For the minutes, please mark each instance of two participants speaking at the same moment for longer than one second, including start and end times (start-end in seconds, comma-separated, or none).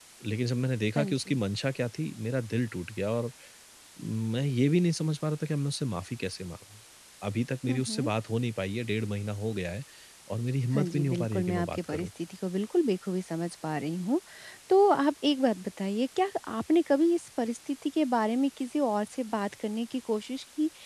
10.7-12.1